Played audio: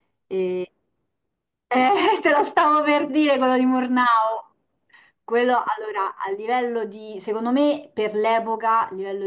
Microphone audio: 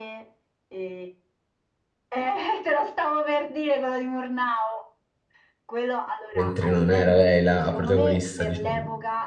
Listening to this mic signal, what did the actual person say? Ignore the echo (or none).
mentre non era lei la protagonista, diciamo.